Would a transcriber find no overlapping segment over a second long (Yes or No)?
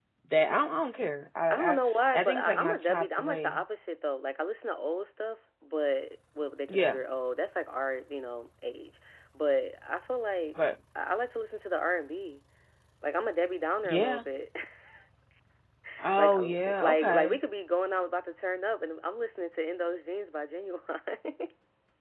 No